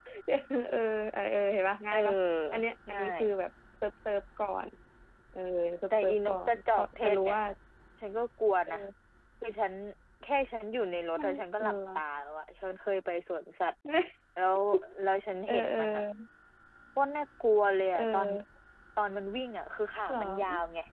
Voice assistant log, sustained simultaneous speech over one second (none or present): present